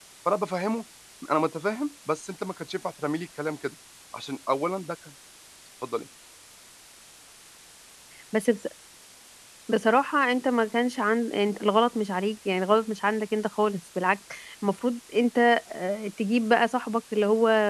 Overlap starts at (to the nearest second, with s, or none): none